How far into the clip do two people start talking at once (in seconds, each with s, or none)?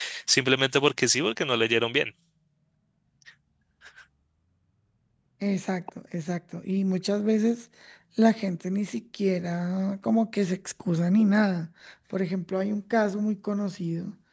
none